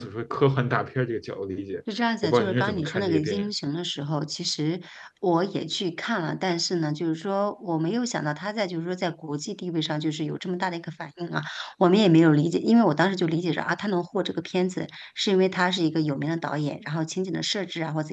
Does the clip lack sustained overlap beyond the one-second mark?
No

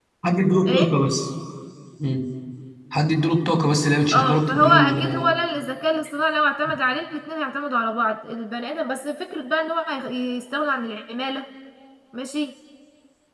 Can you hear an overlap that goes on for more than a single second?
Yes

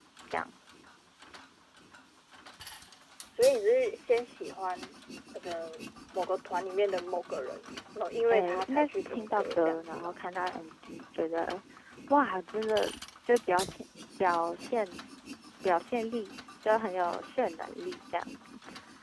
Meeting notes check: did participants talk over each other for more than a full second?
Yes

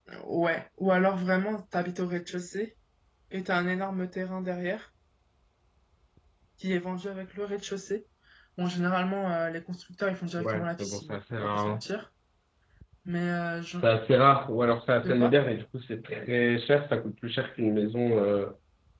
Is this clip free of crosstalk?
No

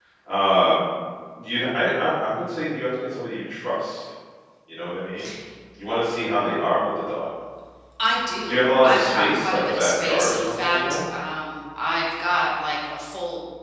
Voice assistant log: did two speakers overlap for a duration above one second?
Yes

